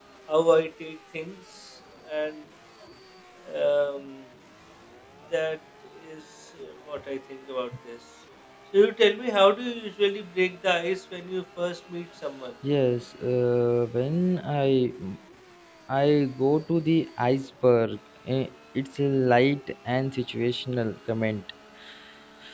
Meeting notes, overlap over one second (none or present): none